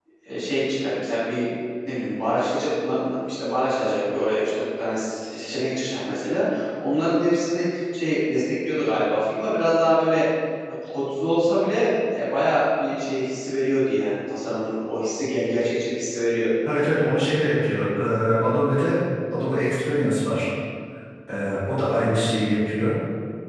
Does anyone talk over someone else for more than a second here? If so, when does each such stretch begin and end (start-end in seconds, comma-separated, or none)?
none